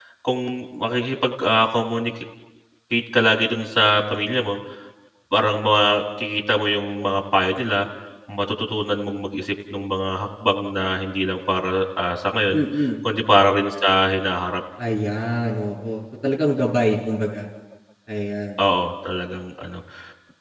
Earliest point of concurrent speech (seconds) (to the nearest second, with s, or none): none